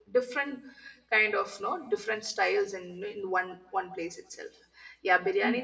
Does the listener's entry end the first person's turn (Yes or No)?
Yes